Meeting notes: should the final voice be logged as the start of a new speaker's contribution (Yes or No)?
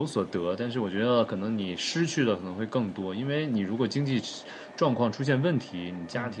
No